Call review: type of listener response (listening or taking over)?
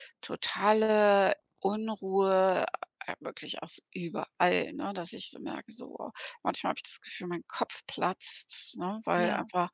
listening